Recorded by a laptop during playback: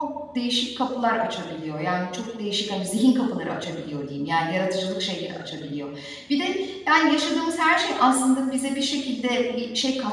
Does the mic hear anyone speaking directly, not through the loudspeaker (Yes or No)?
Yes